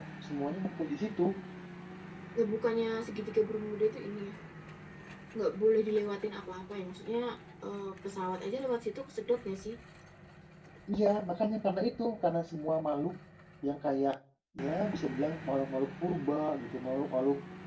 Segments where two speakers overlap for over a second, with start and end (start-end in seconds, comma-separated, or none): none